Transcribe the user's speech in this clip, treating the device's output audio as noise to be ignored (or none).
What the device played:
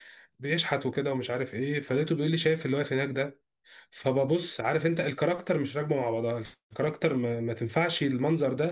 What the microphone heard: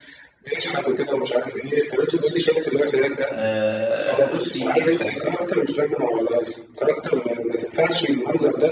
آه بيتكسفوا